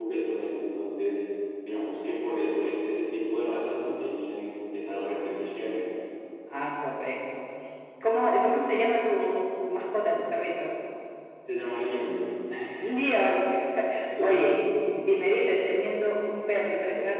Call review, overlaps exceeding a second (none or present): none